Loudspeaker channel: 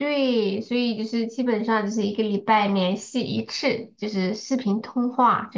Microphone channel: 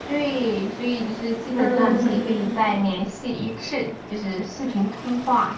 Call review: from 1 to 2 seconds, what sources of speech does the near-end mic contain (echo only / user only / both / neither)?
both